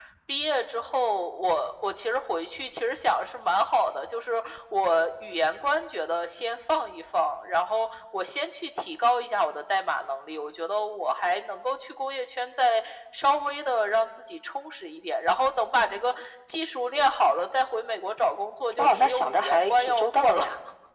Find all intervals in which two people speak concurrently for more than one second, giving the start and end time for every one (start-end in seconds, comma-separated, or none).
18.8-20.4